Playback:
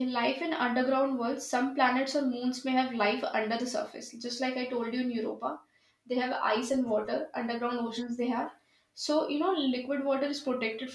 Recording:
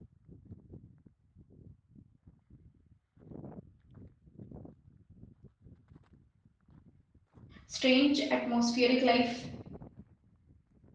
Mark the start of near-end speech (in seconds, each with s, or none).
7.6 s